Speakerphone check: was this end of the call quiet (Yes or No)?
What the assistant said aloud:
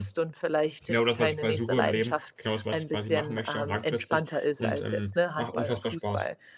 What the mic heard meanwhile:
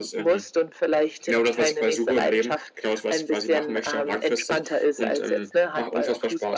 Yes